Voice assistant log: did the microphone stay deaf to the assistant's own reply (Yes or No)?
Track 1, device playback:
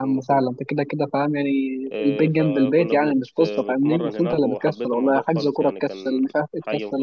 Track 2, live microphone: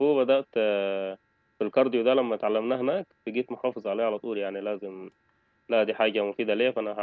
Yes